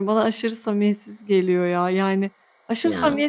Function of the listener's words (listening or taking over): listening